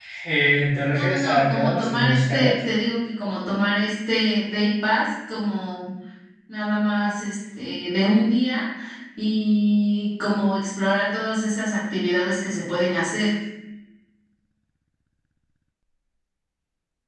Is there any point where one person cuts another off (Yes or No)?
Yes